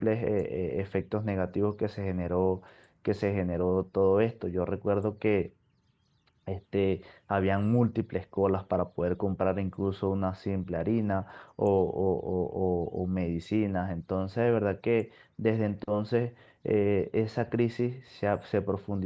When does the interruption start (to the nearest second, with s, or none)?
none